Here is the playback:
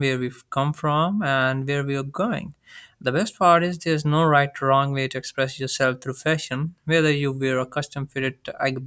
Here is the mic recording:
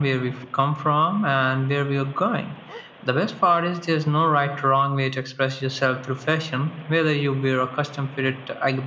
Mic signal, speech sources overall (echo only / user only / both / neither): echo only